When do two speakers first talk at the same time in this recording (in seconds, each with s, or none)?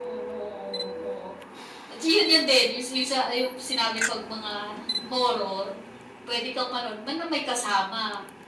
none